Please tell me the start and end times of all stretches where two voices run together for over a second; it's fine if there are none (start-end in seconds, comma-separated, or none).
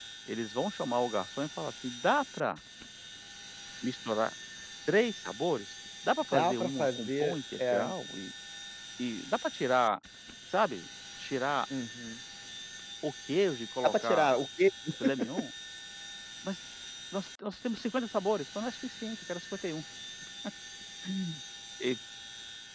6.3-7.8